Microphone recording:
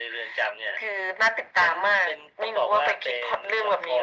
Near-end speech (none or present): none